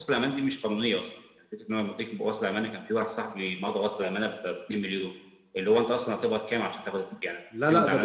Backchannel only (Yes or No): No